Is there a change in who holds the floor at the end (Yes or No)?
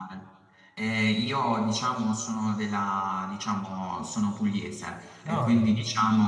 No